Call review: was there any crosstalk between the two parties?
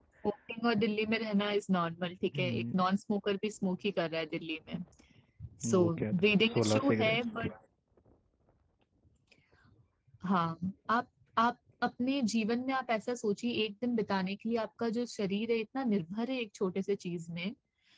Yes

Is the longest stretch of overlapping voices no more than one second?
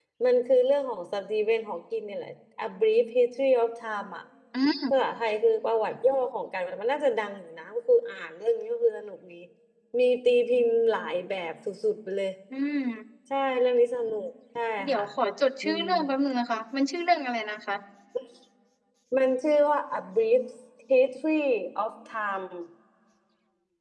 Yes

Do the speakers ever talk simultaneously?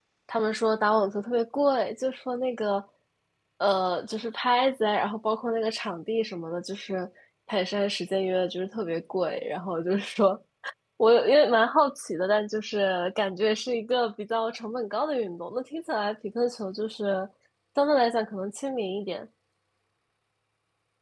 No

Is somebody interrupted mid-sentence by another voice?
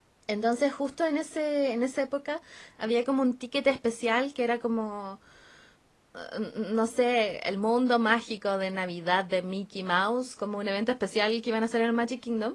No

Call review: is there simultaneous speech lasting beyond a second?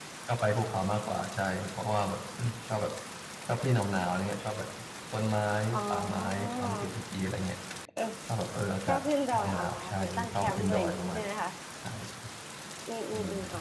Yes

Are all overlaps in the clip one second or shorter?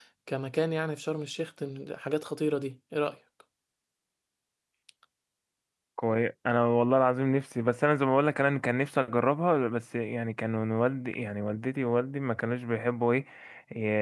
Yes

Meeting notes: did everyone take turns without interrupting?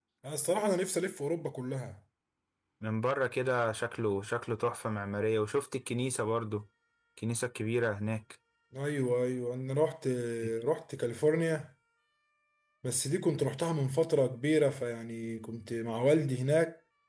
Yes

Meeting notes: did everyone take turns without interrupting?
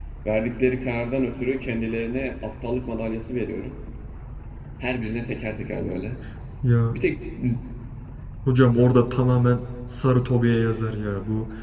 Yes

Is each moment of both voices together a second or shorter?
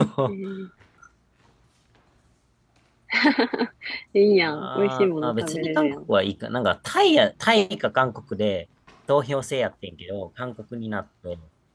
No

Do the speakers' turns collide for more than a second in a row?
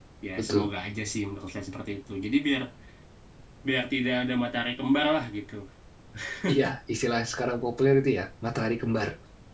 No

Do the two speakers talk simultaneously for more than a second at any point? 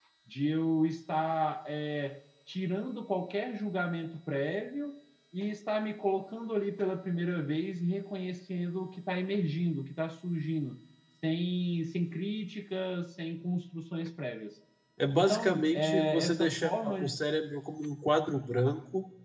Yes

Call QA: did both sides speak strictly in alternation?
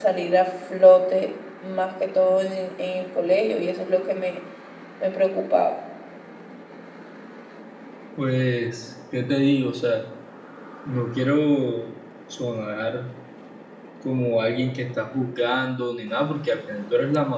Yes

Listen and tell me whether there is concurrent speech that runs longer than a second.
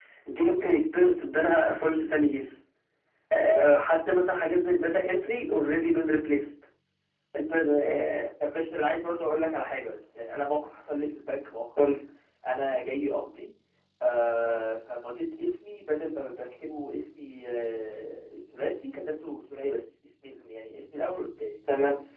No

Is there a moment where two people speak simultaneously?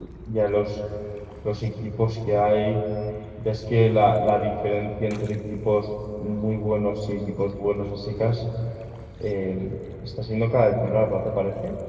No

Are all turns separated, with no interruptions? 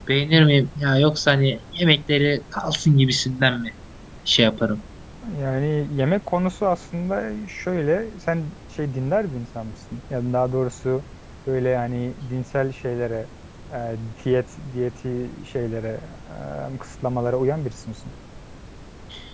Yes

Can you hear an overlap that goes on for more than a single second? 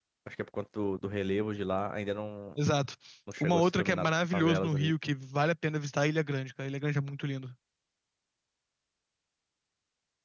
Yes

